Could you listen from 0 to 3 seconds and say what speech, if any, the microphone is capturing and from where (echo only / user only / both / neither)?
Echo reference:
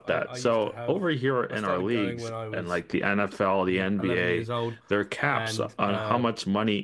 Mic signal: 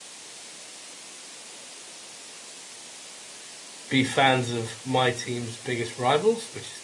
neither